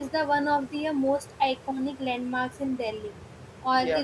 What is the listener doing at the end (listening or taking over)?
listening